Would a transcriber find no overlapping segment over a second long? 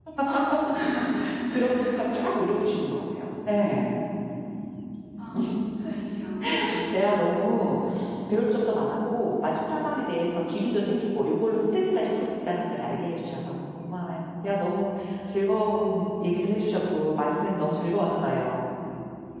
Yes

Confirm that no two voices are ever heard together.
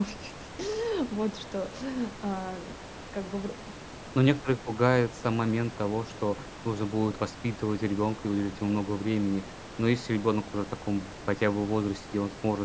Yes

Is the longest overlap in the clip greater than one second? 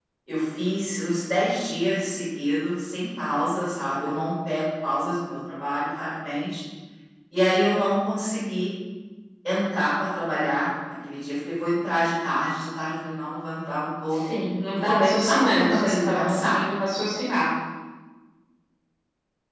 Yes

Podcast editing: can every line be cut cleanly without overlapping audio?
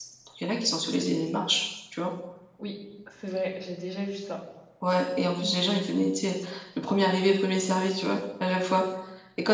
Yes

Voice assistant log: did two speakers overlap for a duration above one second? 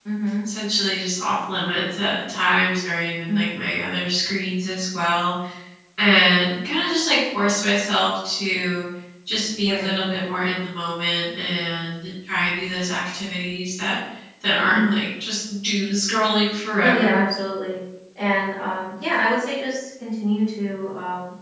No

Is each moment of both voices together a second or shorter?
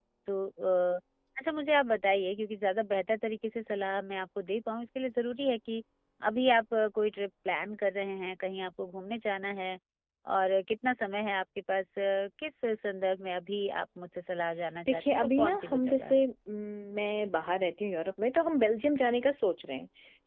No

